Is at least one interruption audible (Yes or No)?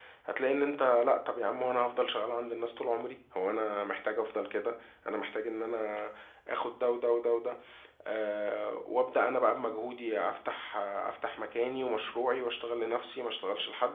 No